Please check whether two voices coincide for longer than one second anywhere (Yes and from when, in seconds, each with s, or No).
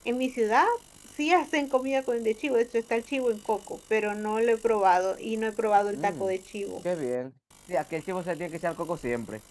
No